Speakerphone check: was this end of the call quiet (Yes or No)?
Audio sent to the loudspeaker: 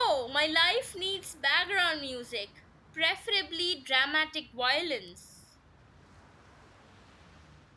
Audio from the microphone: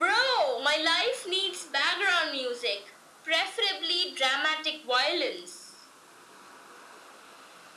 Yes